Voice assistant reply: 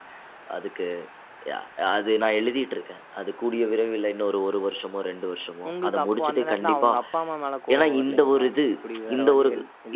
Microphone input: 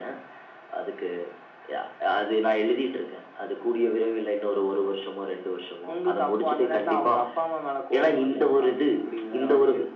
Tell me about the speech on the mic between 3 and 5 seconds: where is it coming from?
echo only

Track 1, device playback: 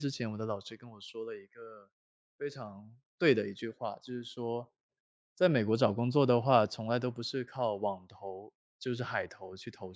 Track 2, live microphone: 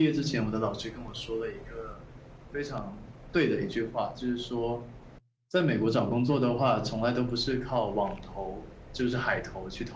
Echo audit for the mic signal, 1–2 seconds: echo only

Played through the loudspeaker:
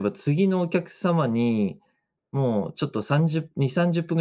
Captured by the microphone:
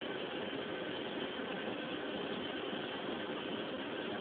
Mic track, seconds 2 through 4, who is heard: neither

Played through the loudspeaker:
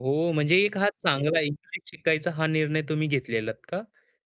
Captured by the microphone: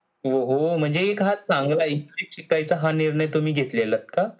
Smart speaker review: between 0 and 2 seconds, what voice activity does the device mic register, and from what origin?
echo only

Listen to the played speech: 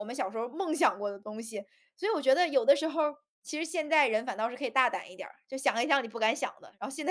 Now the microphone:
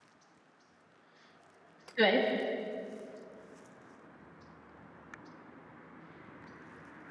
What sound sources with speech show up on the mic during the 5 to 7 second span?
neither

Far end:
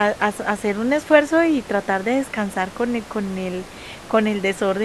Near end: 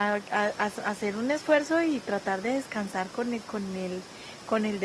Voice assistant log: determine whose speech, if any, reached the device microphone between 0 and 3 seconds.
echo only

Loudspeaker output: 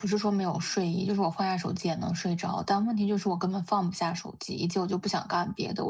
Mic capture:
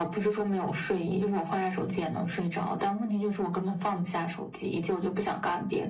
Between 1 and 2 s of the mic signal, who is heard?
echo only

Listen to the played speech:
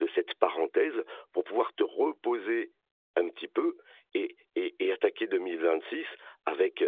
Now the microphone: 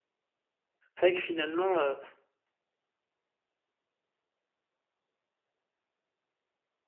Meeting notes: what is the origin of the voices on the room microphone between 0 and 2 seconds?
user only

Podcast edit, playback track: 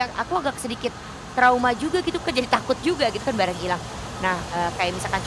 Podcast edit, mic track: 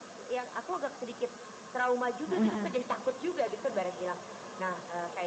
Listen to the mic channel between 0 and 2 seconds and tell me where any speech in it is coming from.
echo only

